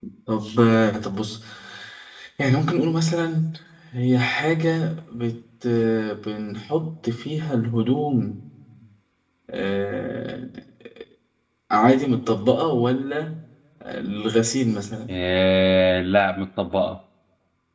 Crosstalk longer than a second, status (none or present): none